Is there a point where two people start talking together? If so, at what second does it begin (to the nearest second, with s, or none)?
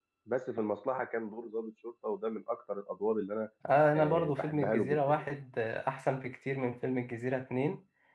4 s